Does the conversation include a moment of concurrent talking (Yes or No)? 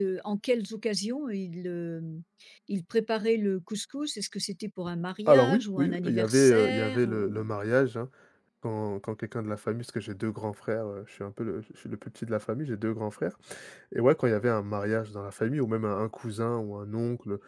Yes